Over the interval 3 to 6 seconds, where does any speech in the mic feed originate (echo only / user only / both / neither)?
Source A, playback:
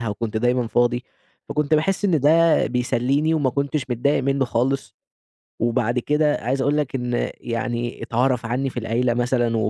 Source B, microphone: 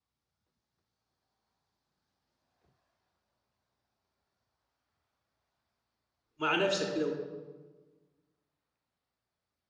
neither